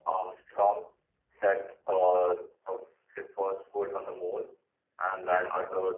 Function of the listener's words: listening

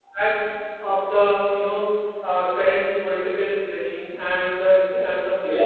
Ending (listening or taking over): listening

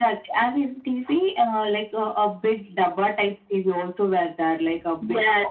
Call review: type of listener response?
taking over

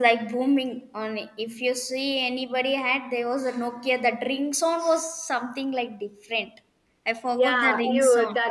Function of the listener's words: taking over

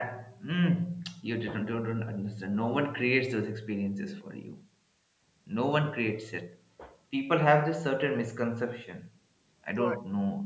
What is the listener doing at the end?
listening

